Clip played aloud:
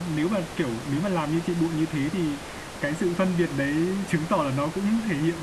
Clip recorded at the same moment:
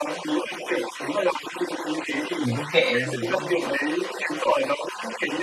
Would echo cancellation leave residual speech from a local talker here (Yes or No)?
Yes